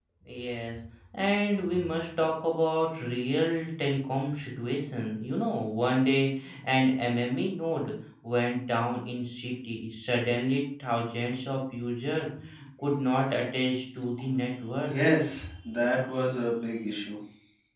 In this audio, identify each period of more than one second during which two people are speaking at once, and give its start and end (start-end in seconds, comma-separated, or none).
none